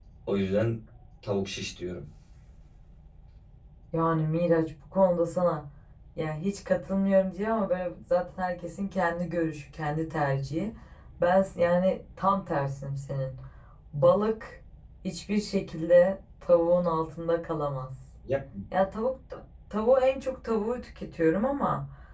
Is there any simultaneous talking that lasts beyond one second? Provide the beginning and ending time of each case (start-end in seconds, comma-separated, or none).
none